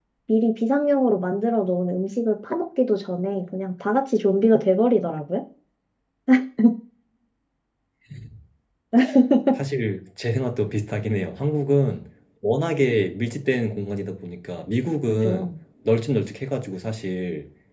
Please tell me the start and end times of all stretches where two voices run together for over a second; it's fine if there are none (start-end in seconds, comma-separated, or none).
none